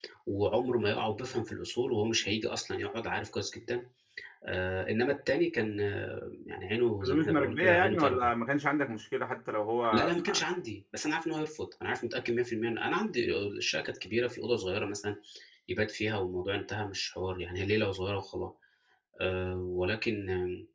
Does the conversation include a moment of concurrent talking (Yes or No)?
Yes